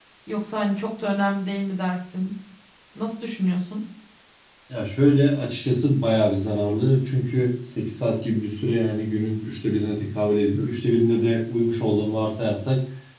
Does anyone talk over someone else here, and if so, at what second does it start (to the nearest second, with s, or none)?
none